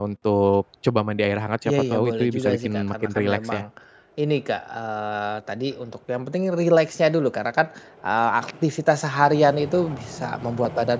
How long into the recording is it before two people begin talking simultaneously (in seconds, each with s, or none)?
1.6 s